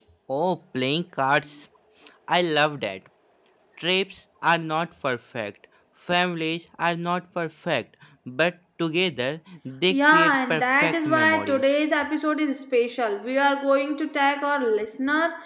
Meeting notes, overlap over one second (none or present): present